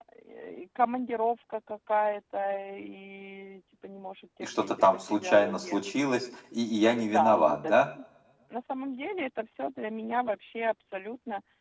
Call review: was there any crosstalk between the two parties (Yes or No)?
Yes